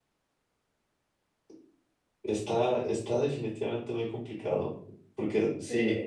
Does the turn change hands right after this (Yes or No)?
No